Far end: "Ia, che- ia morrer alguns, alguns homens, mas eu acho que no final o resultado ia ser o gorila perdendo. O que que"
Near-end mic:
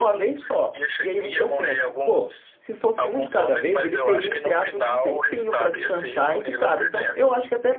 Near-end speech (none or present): present